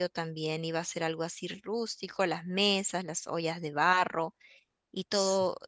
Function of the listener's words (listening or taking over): listening